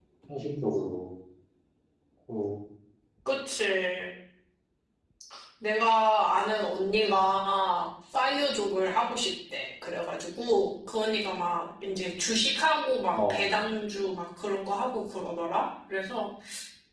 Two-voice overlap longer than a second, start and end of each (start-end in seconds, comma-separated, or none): none